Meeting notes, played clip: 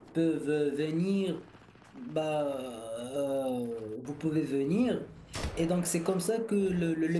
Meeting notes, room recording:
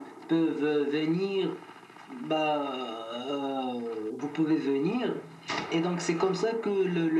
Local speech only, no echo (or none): none